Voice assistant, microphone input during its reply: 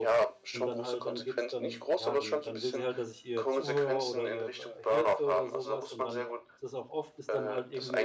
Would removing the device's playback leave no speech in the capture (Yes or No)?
No